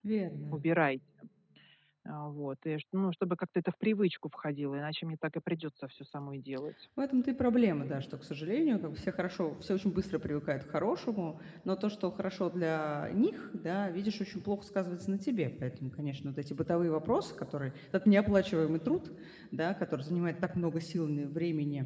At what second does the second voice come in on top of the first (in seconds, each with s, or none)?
none